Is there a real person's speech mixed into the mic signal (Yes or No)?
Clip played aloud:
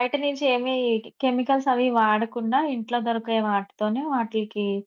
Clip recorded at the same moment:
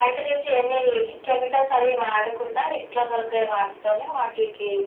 No